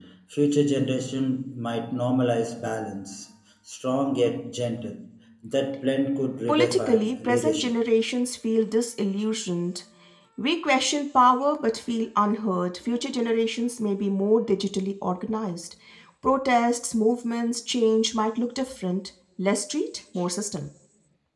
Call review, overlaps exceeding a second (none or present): present